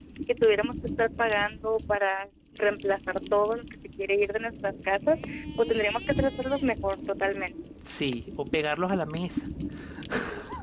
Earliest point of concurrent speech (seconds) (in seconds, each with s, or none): none